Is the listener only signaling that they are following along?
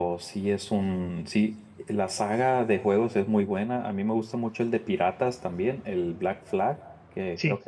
Yes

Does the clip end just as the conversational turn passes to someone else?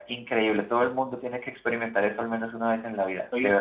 Yes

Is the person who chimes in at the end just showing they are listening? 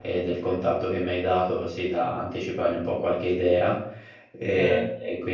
Yes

